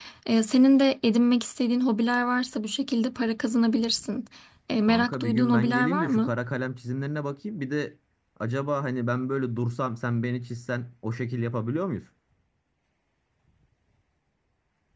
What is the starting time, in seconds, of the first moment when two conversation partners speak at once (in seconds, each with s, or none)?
4.8 s